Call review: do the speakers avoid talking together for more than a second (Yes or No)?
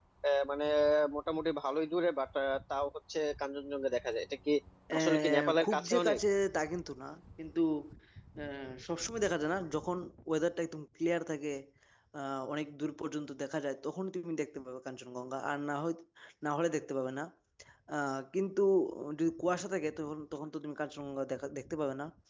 No